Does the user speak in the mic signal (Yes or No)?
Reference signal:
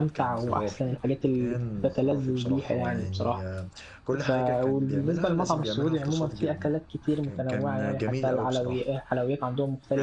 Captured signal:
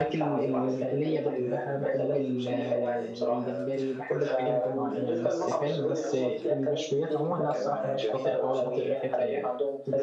Yes